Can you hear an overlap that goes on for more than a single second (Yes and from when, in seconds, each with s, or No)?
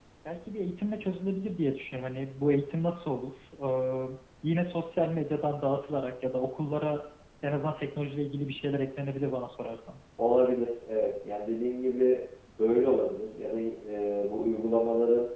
No